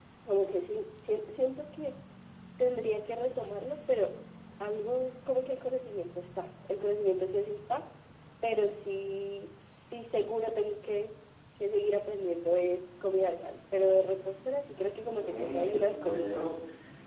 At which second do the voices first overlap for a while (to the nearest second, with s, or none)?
15 s